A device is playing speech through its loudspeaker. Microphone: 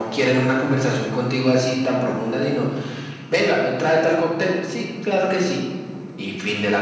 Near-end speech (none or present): none